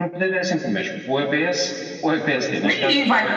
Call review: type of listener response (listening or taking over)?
taking over